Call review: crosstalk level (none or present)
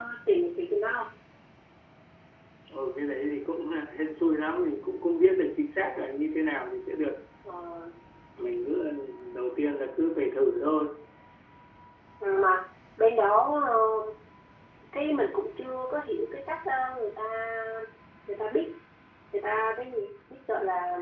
none